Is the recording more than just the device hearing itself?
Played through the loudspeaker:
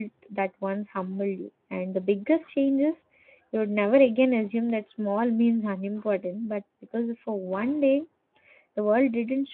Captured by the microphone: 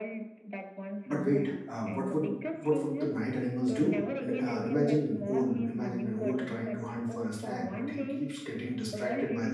Yes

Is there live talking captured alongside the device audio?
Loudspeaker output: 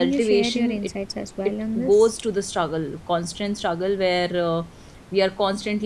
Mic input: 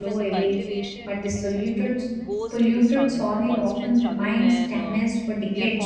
Yes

